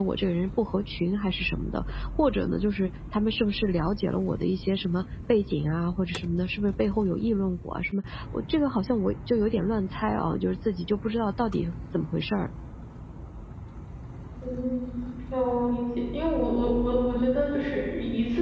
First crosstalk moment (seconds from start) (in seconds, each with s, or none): none